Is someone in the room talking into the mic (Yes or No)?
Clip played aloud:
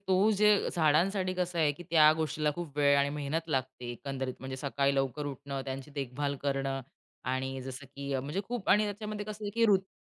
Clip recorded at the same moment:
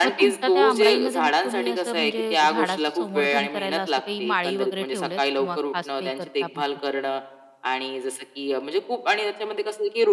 Yes